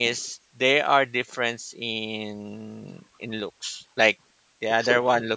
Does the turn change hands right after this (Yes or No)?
No